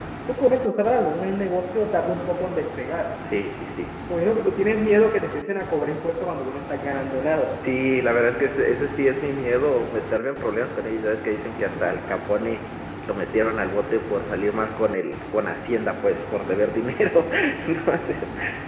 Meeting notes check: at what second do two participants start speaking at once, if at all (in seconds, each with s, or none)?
none